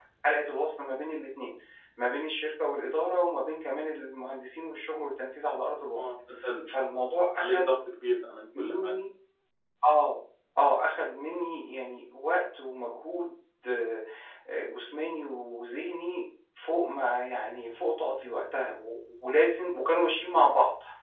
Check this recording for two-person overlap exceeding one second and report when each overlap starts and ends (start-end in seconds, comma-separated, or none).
none